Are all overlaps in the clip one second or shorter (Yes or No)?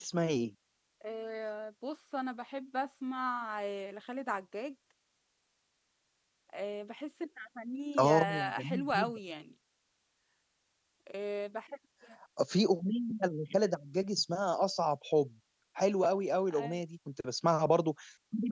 No